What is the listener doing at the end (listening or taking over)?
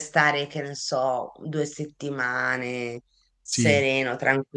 listening